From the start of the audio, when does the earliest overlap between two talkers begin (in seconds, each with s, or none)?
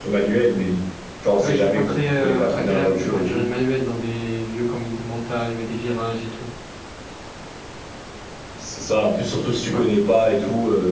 1.4 s